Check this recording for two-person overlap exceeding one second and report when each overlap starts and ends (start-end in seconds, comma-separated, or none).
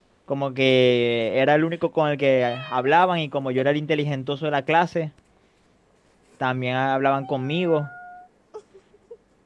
none